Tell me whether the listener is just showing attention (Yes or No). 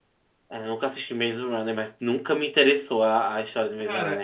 No